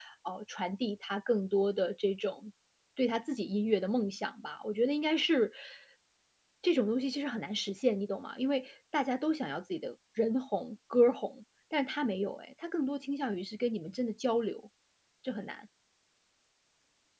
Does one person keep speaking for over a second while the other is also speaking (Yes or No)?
No